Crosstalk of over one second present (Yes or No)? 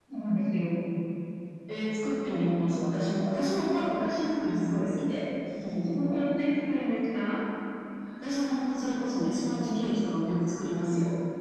No